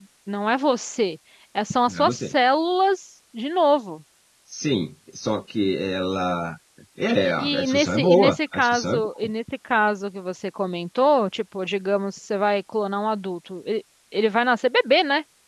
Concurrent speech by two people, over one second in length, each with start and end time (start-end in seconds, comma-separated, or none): 7.4-9.1